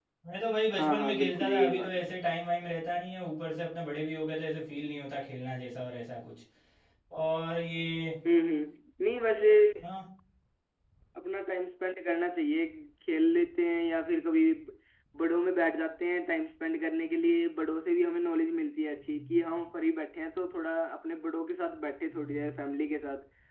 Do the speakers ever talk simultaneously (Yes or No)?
Yes